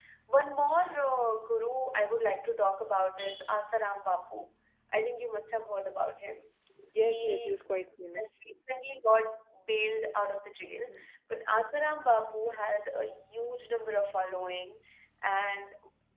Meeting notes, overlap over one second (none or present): none